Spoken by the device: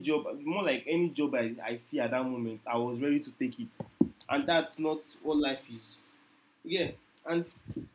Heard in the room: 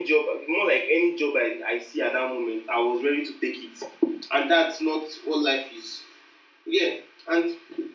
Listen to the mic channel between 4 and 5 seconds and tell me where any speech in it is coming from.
echo only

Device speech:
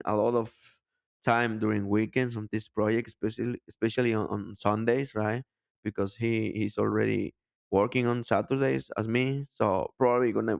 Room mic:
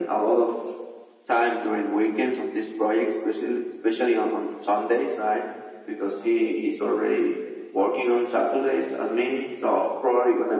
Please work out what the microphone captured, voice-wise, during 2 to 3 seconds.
echo only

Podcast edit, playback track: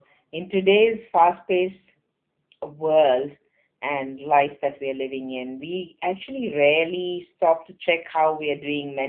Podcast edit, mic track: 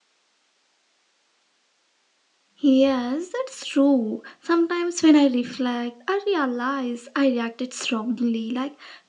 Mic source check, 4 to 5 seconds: user only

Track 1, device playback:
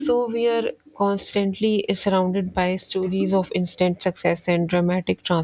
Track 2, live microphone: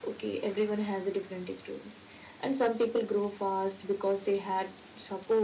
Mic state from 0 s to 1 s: user only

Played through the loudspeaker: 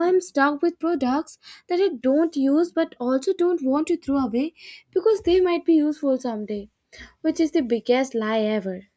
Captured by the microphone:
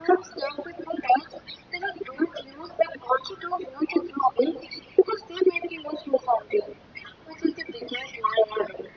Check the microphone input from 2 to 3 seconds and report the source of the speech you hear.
echo only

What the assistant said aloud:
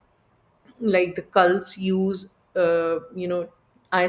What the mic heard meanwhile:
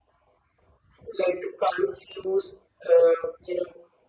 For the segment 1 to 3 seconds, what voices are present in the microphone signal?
echo only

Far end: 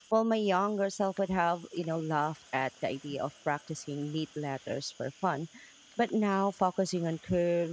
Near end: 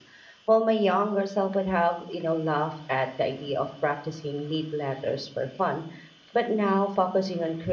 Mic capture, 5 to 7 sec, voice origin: echo only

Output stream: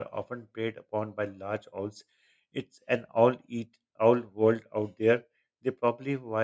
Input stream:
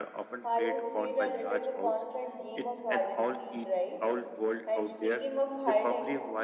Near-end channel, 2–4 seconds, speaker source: both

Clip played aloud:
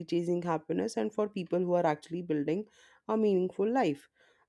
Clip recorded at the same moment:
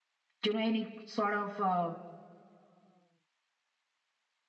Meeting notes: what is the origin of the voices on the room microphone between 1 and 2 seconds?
user only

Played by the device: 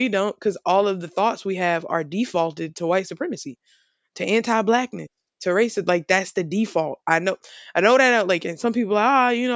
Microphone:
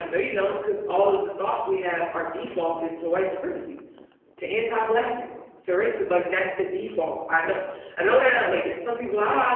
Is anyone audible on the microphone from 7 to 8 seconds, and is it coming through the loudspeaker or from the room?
echo only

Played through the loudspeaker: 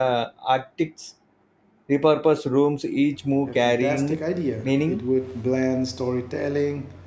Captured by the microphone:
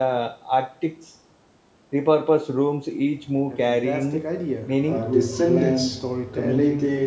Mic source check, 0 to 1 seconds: echo only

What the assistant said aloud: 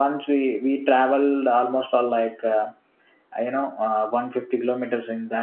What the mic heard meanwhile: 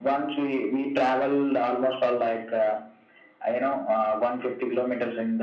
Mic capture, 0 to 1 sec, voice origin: echo only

